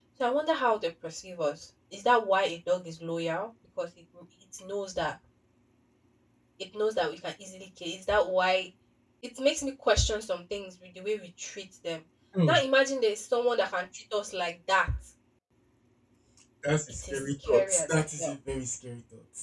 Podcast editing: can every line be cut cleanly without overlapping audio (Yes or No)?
No